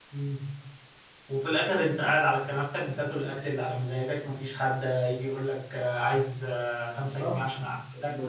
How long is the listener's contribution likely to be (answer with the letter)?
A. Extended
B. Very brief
A